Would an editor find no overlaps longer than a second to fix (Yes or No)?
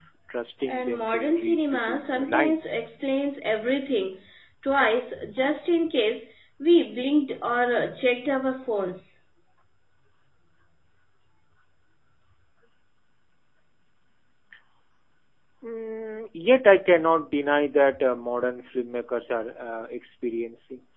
No